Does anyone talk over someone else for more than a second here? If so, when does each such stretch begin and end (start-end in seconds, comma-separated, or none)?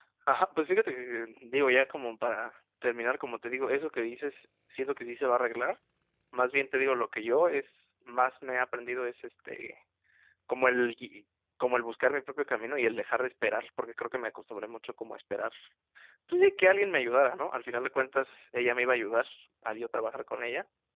none